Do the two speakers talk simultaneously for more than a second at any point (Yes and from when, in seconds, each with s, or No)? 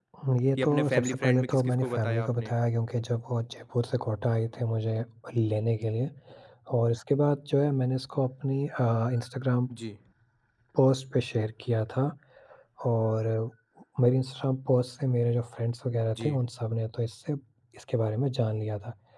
Yes, from 0.6 s